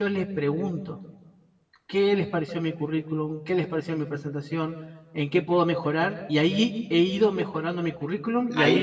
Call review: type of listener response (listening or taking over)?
taking over